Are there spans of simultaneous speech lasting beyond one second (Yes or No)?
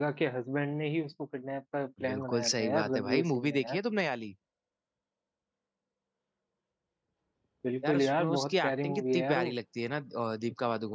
Yes